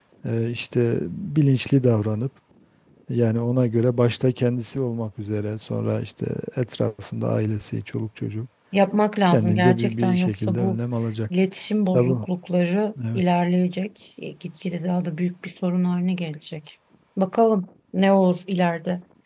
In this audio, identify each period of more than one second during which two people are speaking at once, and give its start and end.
9.3-10.8

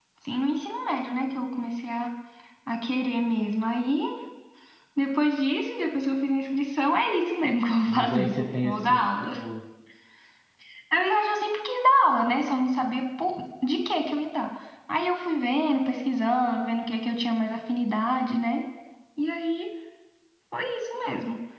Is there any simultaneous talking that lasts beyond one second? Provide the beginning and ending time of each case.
7.9-9.3

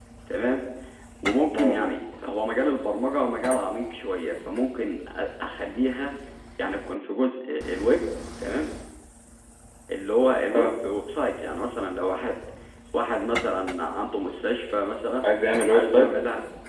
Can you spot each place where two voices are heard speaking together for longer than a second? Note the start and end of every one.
none

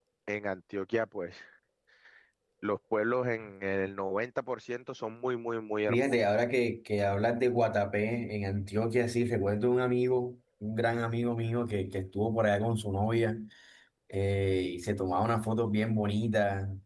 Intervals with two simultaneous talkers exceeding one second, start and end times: none

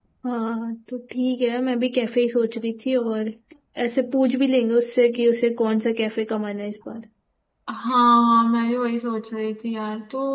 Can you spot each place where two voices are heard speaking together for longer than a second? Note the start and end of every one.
none

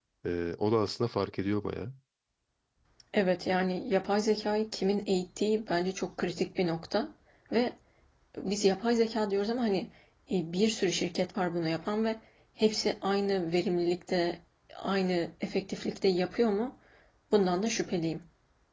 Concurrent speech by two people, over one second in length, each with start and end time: none

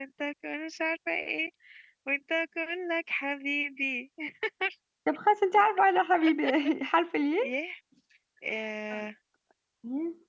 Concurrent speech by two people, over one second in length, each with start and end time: none

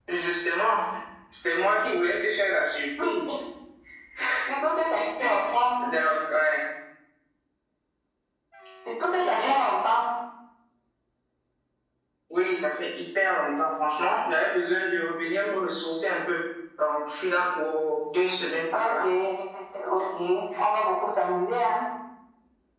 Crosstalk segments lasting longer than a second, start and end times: none

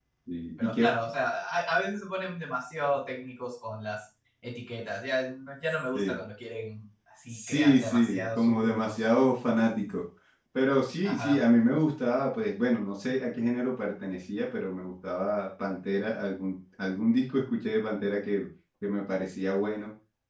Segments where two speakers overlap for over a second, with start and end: 7.3-8.9

